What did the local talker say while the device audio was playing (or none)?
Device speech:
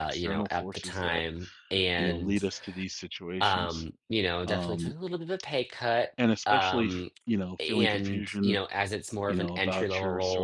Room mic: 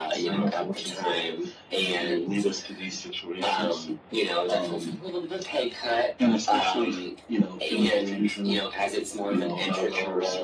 none